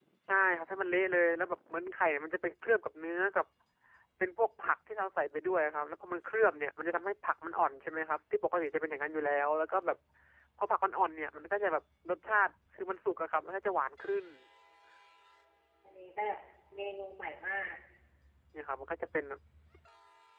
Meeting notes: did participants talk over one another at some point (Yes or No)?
No